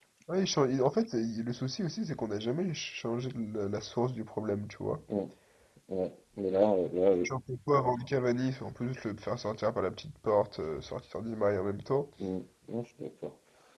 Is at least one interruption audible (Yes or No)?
No